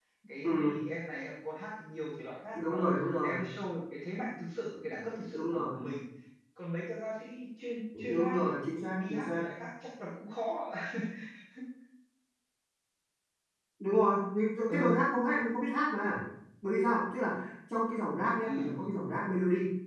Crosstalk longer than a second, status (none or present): none